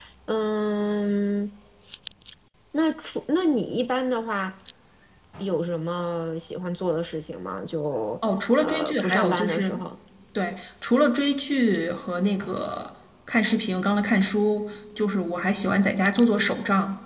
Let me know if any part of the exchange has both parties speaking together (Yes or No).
Yes